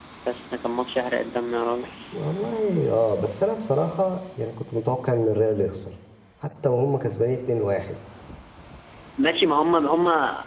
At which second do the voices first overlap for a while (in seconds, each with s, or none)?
none